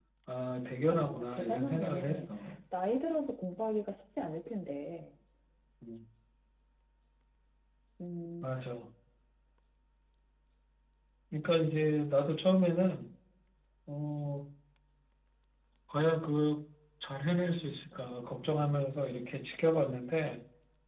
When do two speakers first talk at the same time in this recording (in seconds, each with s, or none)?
0.9 s